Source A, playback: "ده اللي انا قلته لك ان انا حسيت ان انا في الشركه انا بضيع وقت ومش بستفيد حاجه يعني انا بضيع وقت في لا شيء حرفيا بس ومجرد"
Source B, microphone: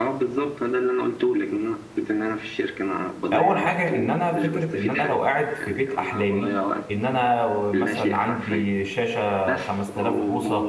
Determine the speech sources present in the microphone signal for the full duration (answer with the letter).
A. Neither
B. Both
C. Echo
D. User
B